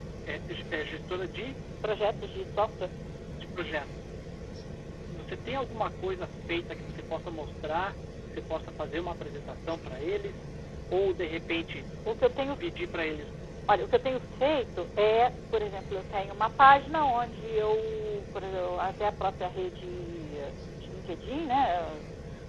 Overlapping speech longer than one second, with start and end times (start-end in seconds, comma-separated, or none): none